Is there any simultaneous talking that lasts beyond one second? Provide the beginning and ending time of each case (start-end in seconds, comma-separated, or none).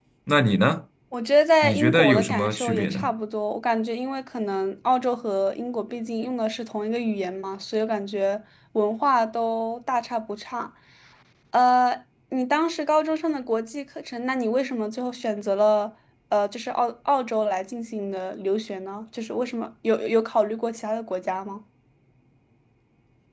1.6-3.1